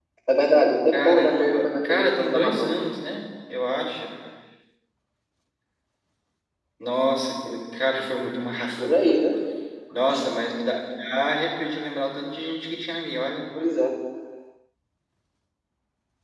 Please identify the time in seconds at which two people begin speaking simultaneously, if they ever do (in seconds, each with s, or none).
0.9 s